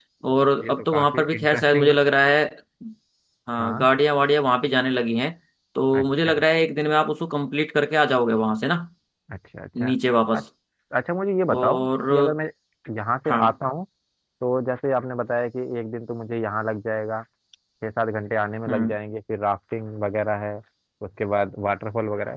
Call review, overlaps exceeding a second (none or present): present